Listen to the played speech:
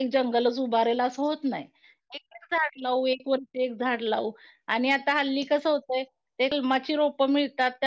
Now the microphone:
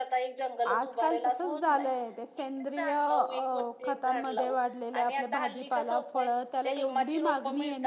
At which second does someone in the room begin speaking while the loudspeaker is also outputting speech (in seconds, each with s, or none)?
0.7 s